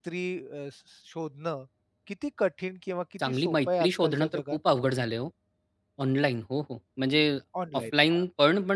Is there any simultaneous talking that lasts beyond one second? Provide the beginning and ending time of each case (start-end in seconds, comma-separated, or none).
3.3-4.6